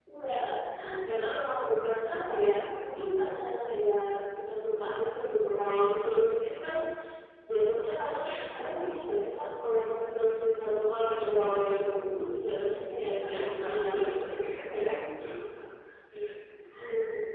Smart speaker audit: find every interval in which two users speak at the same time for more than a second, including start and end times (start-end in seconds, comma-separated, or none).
13.3-14.6